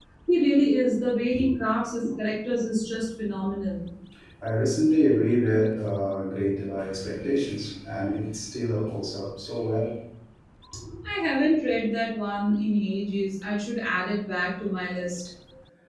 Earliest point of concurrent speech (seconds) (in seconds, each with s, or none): none